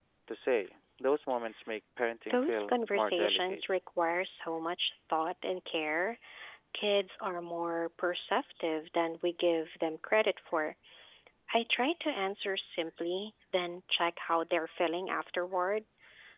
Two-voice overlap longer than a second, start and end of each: 2.3-3.6

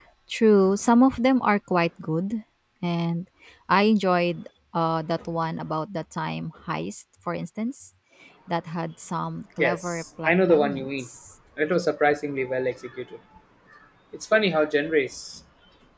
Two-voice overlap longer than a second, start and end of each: 9.6-11.1

